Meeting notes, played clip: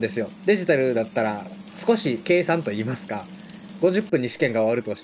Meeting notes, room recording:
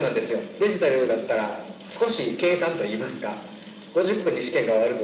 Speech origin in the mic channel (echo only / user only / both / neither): echo only